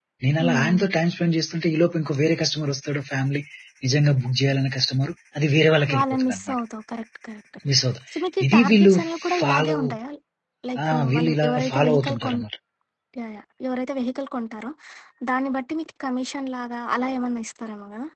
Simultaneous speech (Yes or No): Yes